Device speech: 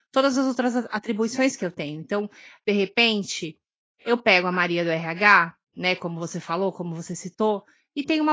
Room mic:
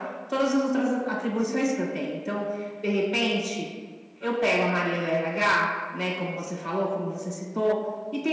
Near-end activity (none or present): none